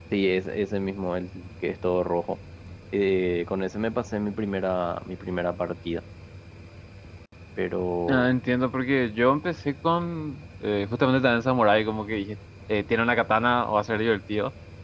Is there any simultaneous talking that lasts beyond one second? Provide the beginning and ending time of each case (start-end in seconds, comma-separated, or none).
none